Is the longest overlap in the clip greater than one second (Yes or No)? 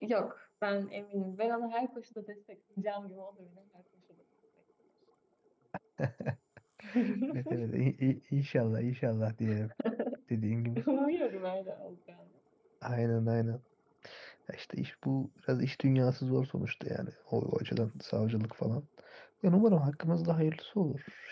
No